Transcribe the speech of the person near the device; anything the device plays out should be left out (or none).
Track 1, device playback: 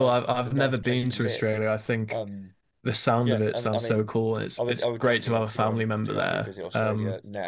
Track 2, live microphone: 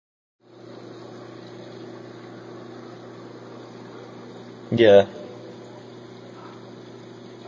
Yeah.